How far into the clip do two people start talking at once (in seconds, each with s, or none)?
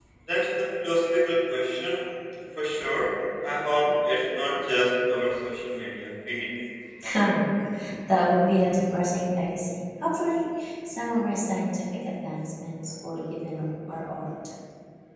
none